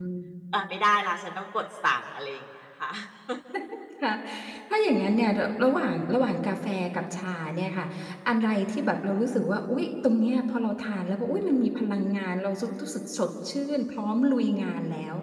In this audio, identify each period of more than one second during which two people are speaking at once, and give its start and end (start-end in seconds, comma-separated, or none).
none